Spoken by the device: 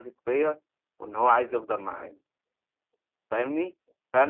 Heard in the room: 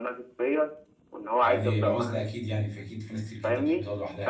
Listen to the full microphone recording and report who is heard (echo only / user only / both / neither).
both